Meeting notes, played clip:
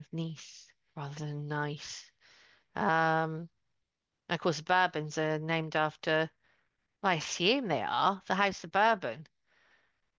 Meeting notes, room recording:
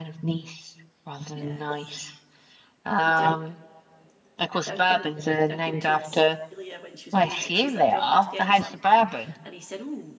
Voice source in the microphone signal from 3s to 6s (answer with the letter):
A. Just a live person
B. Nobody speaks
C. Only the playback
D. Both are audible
D